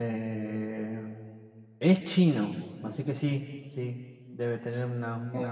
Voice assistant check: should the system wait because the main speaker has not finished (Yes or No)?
No